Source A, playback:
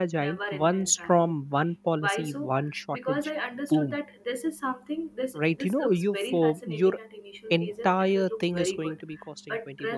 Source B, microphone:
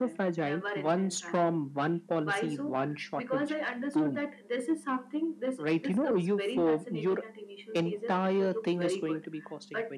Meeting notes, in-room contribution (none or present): none